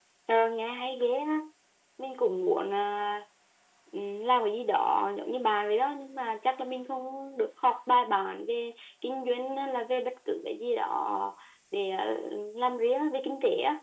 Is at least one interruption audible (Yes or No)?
No